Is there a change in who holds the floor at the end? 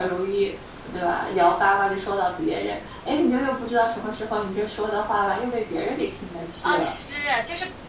Yes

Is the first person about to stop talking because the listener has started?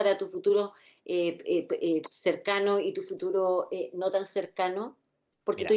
No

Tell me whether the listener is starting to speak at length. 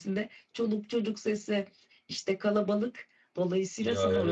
Yes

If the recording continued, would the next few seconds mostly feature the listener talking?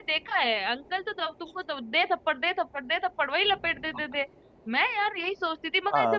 No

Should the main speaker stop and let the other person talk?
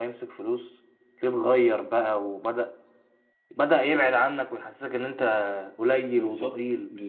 Yes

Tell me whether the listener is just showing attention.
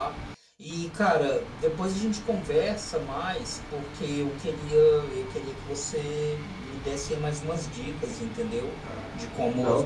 Yes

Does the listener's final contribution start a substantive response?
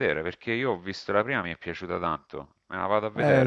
Yes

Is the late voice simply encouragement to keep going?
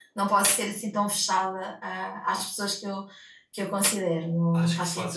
No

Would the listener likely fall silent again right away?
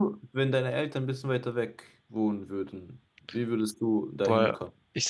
No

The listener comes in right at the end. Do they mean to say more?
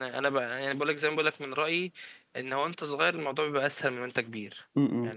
Yes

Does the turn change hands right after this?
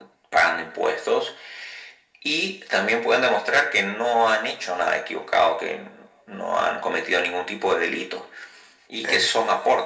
No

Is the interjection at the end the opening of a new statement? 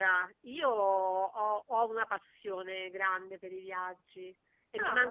No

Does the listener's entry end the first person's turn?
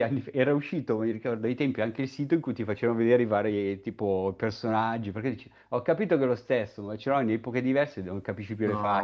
Yes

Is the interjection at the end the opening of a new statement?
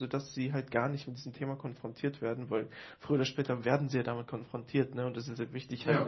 No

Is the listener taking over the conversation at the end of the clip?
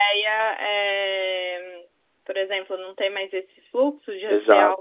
Yes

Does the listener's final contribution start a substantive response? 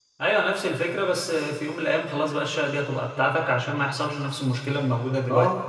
Yes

